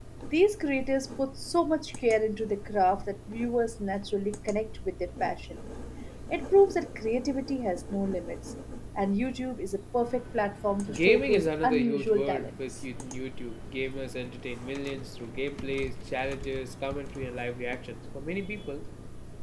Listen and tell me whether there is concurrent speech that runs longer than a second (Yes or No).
Yes